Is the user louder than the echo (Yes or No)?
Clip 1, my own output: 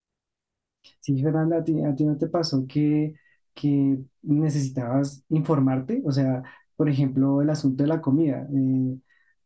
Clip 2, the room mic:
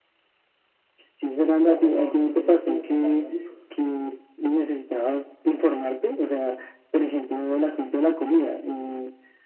No